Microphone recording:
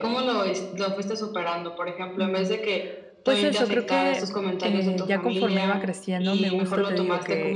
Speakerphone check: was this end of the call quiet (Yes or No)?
No